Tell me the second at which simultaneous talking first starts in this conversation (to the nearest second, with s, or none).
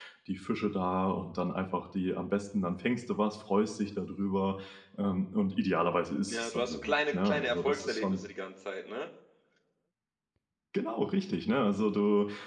6 s